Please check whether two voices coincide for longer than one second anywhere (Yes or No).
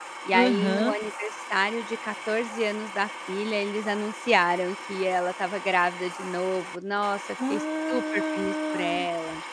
Yes